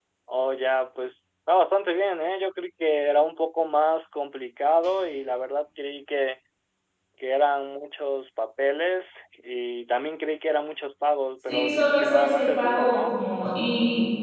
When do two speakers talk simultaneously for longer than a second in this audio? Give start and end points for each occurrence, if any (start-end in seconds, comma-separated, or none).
11.5-13.1